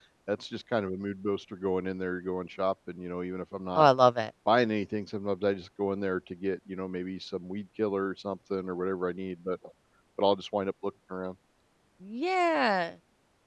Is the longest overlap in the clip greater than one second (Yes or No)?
No